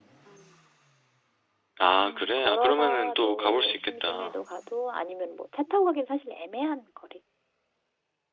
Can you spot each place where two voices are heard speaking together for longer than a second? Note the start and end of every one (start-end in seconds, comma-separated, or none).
2.0-4.4